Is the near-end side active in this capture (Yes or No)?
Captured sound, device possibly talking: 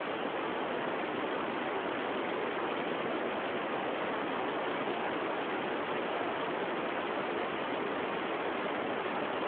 No